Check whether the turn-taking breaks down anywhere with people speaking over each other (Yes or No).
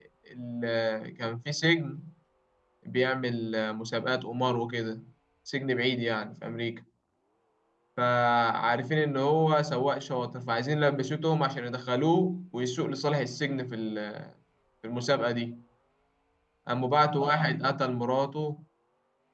No